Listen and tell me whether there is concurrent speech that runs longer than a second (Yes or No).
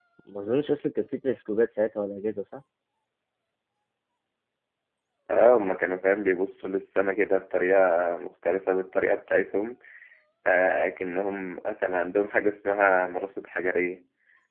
No